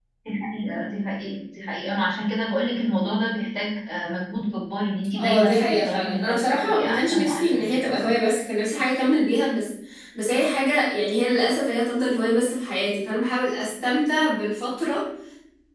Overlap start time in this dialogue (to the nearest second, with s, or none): 5 s